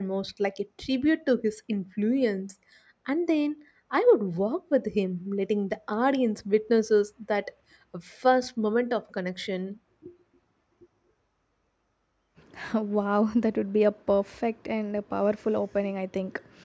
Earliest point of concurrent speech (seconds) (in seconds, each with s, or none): none